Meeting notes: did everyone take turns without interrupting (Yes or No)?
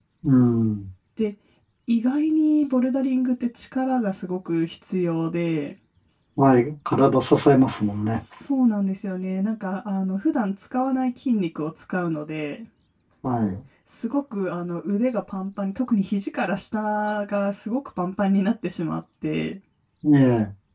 Yes